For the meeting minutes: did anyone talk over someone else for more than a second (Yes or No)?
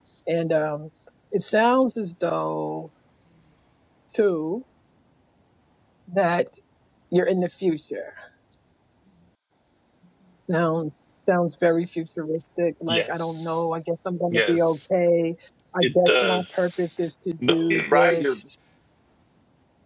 Yes